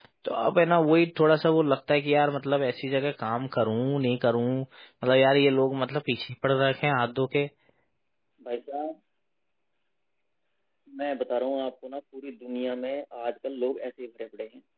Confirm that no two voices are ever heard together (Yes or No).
Yes